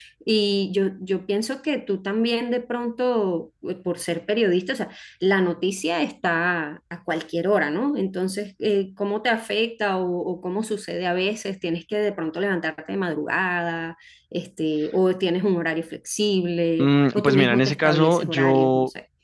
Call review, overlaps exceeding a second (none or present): present